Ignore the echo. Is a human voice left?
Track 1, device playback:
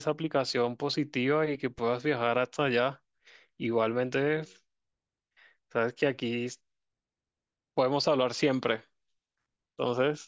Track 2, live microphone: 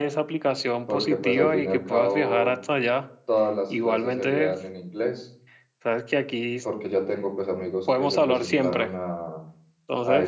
Yes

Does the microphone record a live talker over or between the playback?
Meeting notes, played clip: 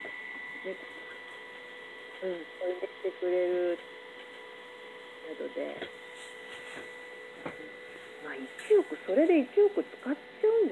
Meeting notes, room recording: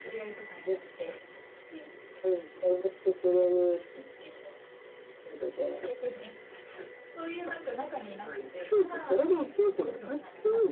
Yes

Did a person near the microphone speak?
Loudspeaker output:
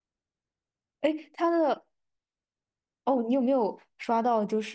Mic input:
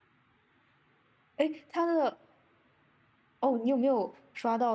No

